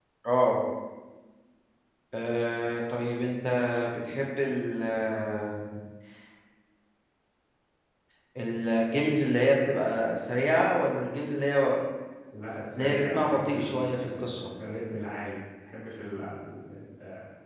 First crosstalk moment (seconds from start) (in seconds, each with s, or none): 12.8 s